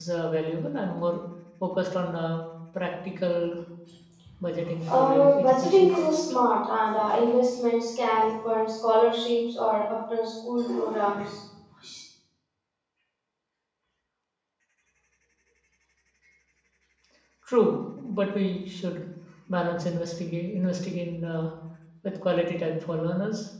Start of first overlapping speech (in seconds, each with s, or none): 4.9 s